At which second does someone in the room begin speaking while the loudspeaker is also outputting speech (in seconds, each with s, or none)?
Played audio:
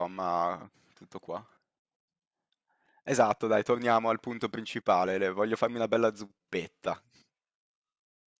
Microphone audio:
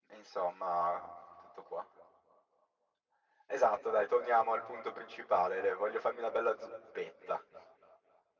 none